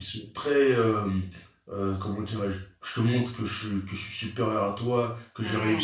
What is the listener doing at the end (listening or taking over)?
listening